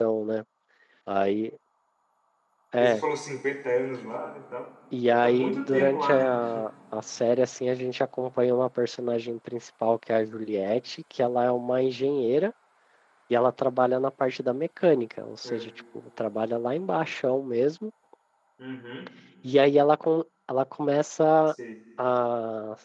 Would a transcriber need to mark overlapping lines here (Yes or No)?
Yes